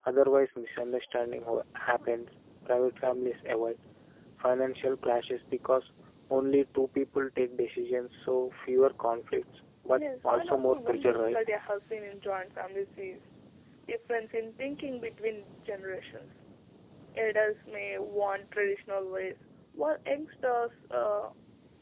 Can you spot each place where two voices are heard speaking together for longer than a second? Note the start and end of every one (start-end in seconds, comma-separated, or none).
9.9-11.4